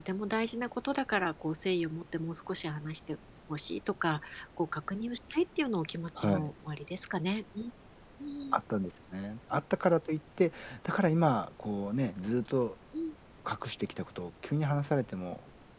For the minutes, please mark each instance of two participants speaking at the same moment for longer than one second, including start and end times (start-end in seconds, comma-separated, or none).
none